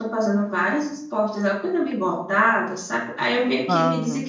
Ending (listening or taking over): listening